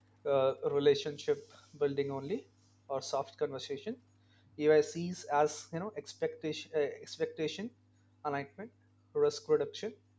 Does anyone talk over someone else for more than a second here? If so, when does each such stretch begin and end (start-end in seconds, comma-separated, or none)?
none